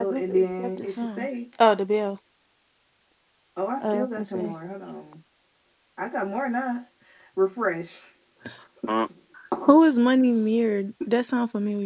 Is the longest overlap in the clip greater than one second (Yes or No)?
Yes